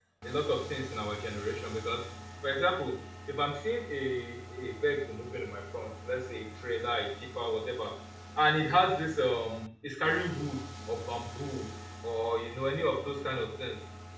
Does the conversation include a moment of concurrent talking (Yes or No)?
No